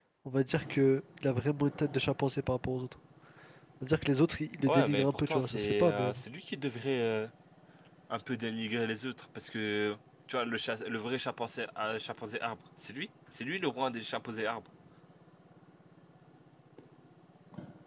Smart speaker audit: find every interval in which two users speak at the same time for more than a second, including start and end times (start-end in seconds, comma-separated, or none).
4.7-6.2